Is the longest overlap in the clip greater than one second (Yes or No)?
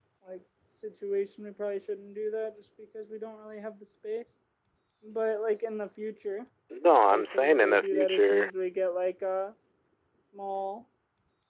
Yes